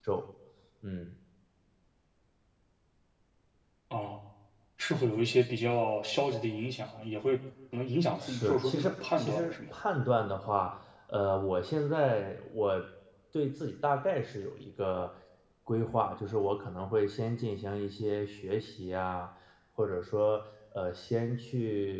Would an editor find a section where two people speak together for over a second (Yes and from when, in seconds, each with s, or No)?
Yes, from 8.2 s